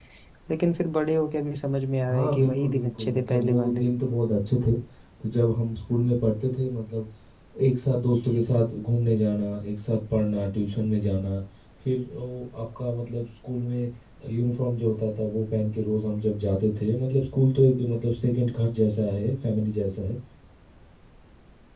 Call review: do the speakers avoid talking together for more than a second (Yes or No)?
No